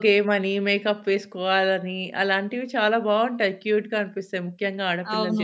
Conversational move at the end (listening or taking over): taking over